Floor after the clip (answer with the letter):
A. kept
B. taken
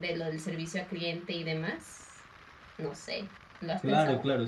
B